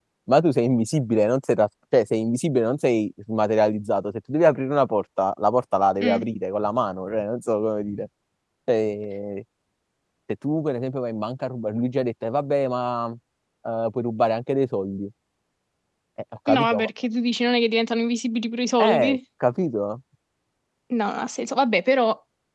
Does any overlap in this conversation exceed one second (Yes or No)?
No